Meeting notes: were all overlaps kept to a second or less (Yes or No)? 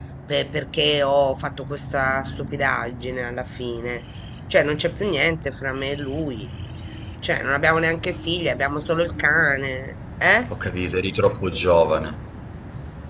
Yes